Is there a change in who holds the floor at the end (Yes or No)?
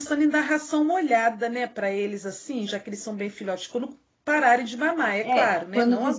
Yes